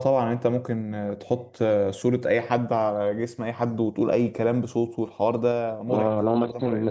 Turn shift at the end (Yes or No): Yes